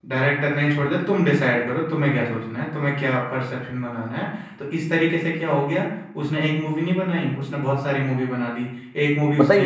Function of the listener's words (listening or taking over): taking over